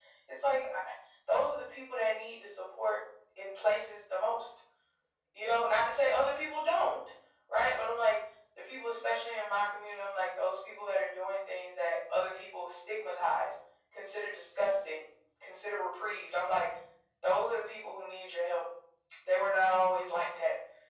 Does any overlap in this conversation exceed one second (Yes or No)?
No